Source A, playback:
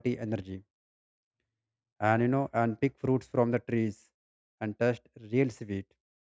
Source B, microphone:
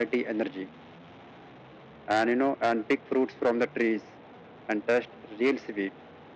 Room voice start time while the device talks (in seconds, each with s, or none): none